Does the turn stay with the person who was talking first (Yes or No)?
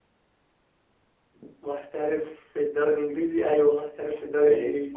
No